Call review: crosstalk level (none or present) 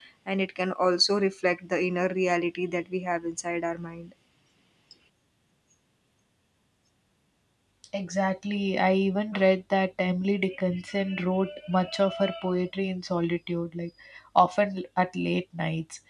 none